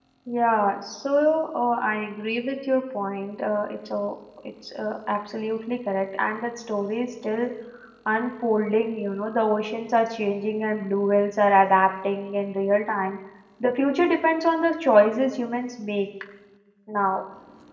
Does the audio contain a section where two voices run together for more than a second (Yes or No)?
No